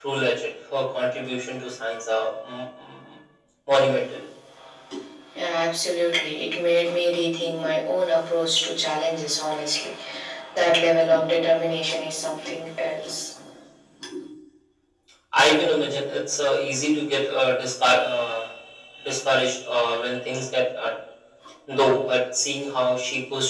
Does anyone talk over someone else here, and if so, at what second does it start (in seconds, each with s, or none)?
none